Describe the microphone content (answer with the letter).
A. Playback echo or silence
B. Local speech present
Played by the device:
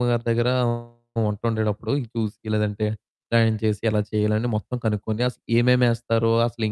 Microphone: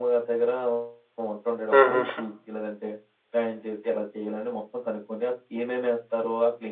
B